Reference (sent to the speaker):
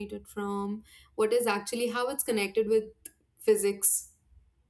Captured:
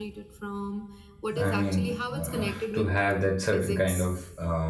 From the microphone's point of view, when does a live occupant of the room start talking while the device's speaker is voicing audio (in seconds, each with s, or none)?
1.4 s